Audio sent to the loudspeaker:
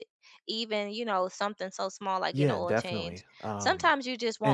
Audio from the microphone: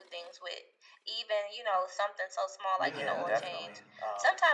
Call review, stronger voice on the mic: echo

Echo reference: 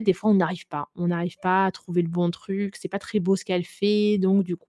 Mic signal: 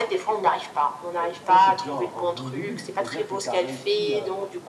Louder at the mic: echo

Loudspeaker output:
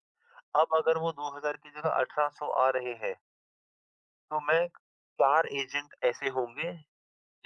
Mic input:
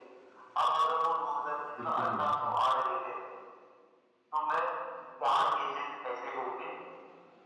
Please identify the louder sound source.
echo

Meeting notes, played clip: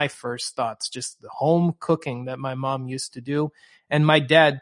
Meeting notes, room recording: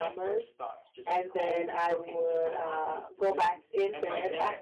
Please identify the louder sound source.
user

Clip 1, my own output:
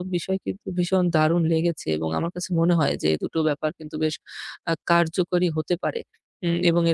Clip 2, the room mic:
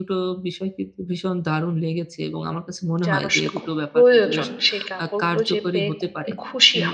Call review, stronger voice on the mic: user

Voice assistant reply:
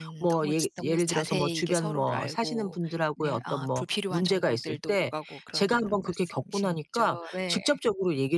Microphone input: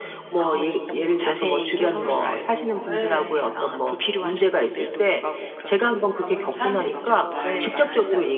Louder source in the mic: echo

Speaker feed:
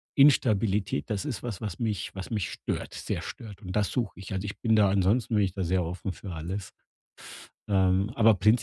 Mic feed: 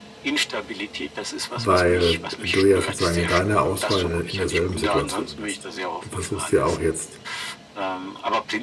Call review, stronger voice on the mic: user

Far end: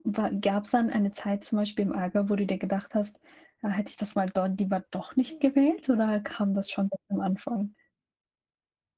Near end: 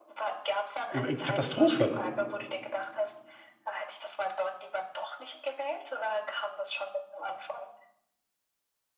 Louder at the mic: user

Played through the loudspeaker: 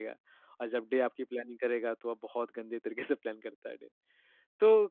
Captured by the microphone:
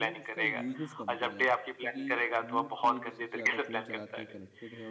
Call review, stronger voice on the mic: echo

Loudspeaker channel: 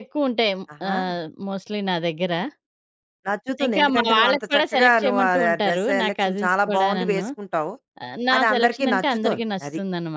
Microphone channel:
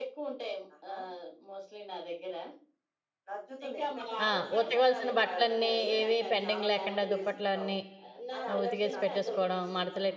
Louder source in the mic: user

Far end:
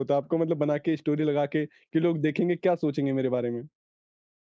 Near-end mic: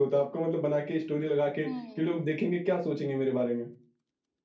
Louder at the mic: echo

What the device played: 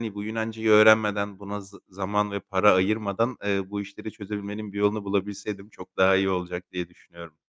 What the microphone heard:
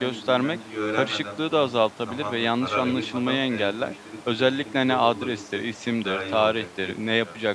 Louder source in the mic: user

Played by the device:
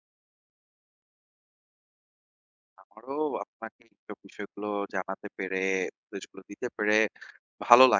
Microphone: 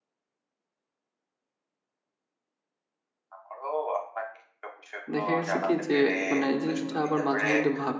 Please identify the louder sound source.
user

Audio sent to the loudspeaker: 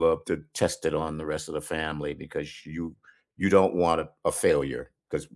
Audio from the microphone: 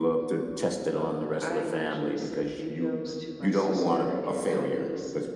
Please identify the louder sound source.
echo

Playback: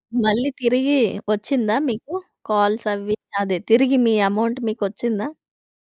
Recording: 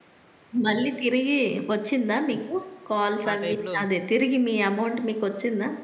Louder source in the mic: echo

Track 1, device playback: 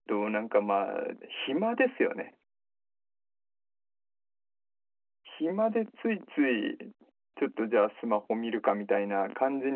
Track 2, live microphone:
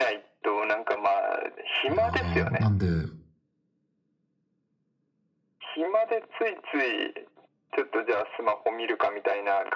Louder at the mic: user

